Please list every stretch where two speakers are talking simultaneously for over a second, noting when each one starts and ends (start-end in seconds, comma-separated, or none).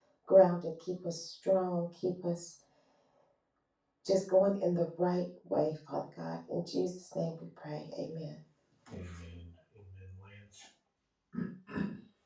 none